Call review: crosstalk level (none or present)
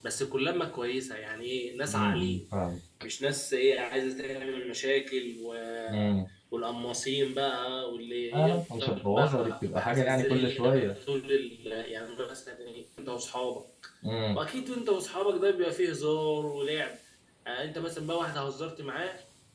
present